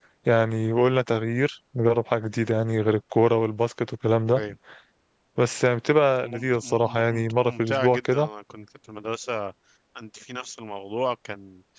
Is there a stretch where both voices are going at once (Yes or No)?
Yes